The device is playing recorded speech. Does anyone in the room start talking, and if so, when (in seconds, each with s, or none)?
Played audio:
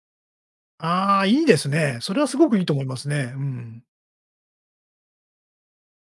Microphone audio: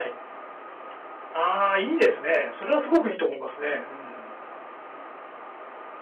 none